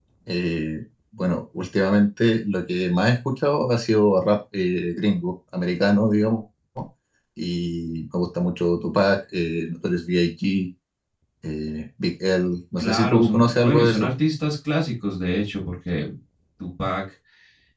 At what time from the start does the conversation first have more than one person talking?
12.8 s

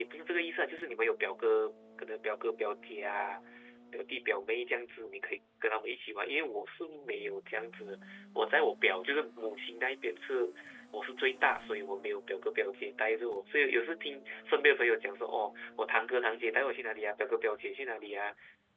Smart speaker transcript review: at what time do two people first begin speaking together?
none

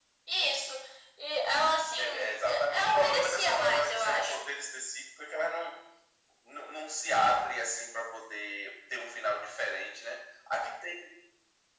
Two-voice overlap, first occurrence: 1.9 s

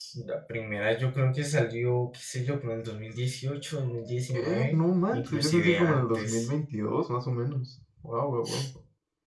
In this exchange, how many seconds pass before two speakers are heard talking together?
4.3 s

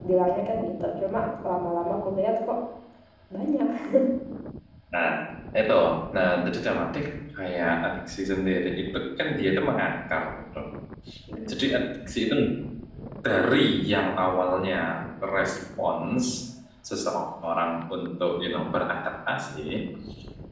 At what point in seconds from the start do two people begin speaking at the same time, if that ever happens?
none

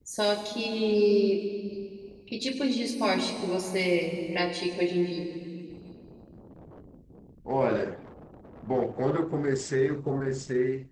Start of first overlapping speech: none

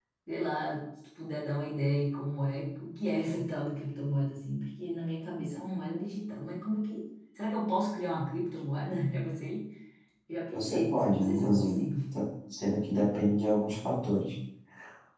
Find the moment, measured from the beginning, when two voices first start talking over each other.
10.5 s

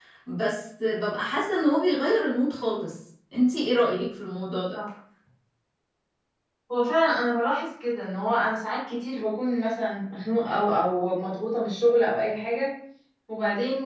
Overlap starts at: none

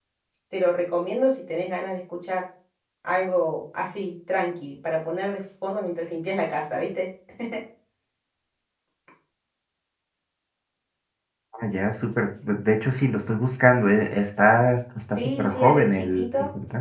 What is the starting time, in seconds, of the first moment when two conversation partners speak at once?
15.1 s

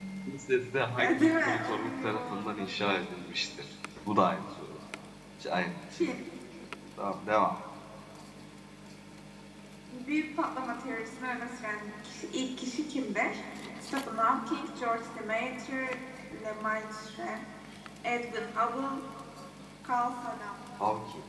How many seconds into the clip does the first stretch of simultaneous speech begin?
1.0 s

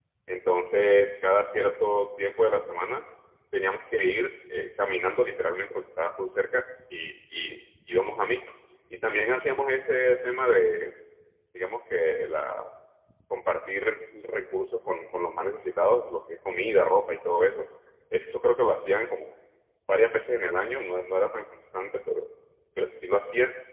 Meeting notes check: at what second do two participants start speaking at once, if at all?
none

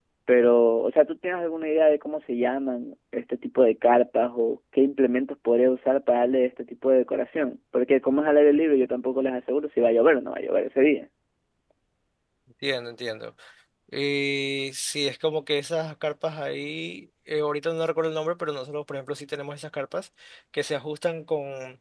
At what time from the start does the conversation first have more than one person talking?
none

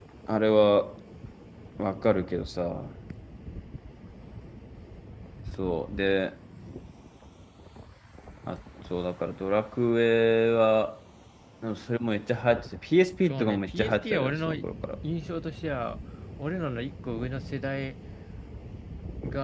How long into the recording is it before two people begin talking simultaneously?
13.2 s

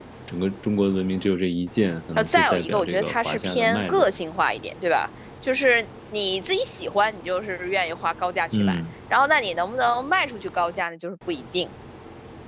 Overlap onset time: 2.2 s

